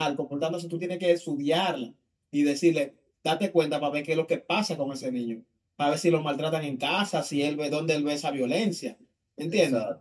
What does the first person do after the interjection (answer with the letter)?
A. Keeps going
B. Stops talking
A